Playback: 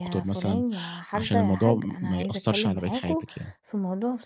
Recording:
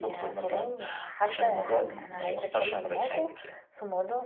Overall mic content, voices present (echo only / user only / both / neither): echo only